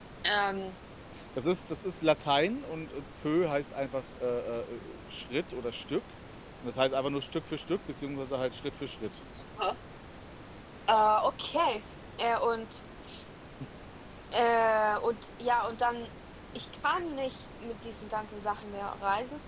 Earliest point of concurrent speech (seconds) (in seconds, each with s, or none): none